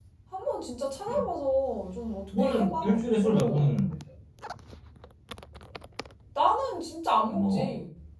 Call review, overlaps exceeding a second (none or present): present